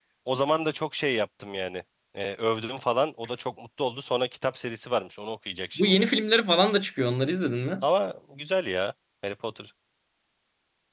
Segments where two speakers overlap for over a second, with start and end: none

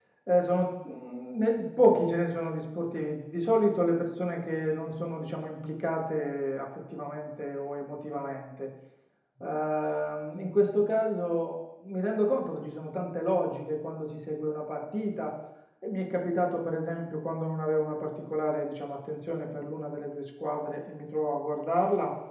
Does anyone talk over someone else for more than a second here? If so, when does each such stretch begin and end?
none

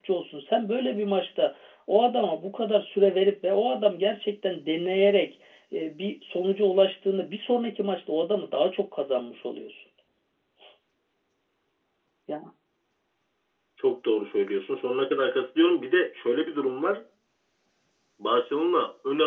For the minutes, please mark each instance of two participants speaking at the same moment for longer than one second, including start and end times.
none

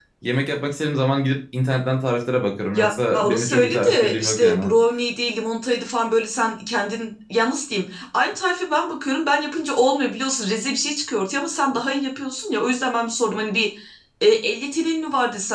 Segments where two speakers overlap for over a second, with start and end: 2.7-4.7

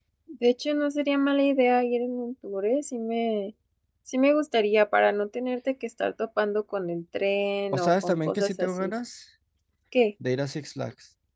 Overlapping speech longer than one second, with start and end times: 7.7-8.9

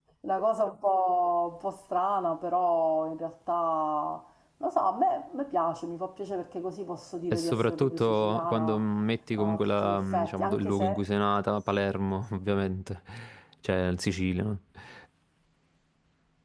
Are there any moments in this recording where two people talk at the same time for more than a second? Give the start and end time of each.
7.3-8.8, 9.3-11.0

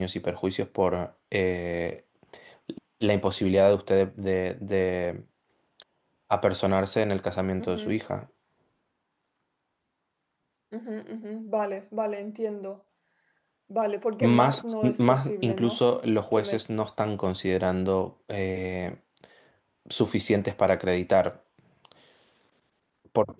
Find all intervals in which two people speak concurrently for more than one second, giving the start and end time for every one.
14.2-15.8

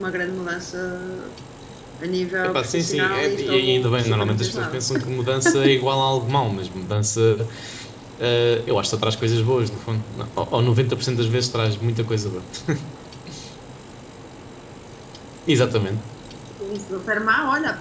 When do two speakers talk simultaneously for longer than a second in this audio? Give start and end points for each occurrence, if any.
2.4-4.8

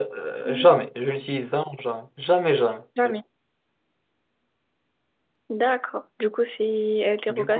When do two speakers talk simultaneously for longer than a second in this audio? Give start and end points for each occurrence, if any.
none

